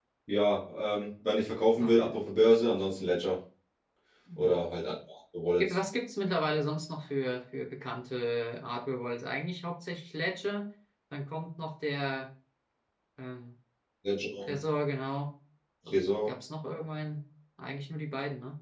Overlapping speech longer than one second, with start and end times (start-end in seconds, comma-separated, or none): none